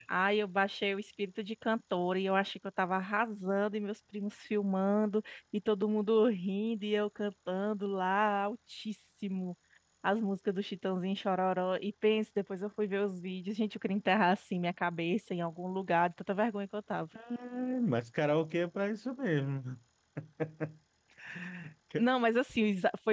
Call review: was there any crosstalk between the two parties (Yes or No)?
No